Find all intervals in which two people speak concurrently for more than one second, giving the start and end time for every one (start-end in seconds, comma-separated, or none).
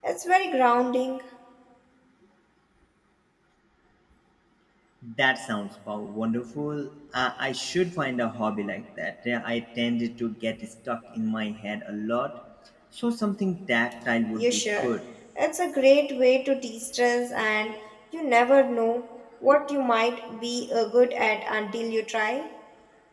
none